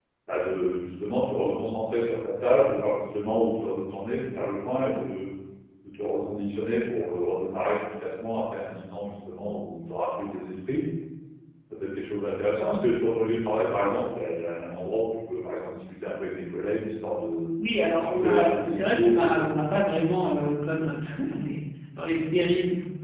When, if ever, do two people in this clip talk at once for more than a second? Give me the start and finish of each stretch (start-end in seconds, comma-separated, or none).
17.9-19.5